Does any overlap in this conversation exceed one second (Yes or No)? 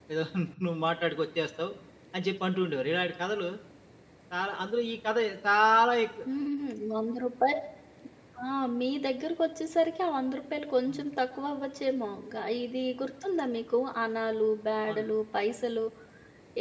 No